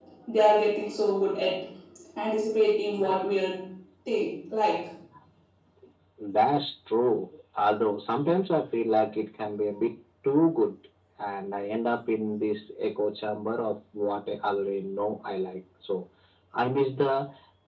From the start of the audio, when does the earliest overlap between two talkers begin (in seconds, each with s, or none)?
none